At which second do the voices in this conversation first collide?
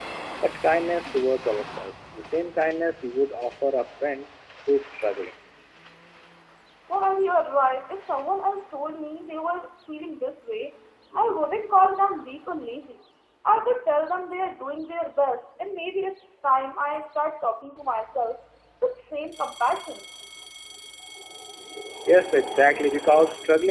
none

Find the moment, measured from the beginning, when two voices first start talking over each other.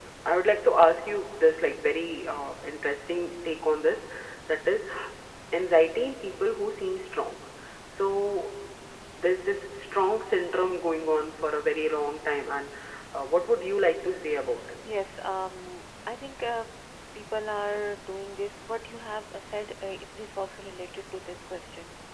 none

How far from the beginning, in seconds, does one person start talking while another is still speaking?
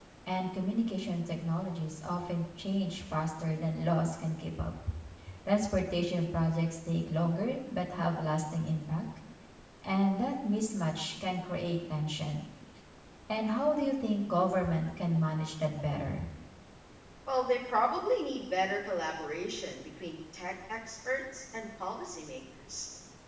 none

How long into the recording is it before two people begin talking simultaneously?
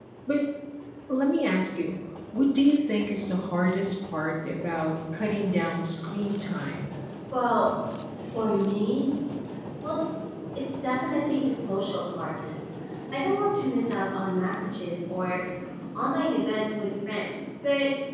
none

